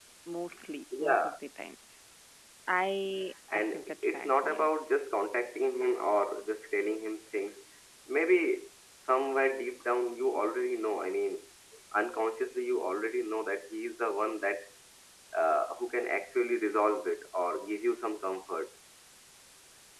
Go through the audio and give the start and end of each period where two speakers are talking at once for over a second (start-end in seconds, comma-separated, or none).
3.5-4.9